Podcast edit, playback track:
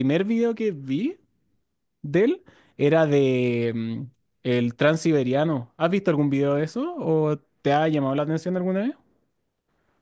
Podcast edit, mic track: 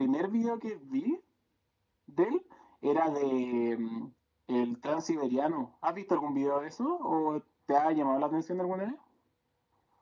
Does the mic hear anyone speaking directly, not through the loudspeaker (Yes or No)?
No